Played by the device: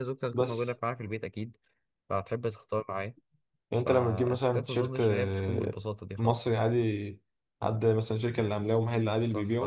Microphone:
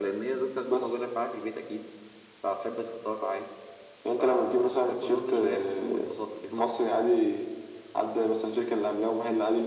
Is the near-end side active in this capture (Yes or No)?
No